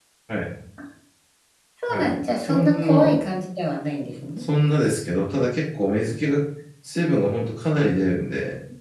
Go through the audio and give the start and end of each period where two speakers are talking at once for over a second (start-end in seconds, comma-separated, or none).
1.9-3.1